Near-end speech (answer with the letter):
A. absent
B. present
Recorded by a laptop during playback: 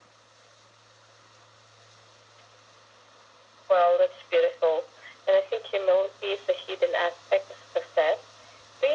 A